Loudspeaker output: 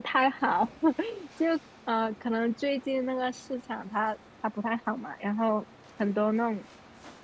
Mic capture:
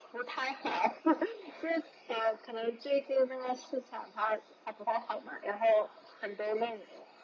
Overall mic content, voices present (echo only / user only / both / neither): echo only